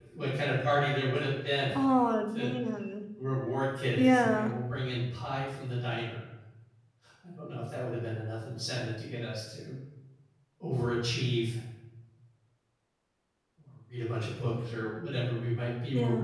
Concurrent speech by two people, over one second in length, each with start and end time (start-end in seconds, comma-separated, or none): none